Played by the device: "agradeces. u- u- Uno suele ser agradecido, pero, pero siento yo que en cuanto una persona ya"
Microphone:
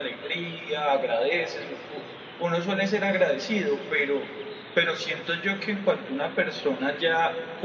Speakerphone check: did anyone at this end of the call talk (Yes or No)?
No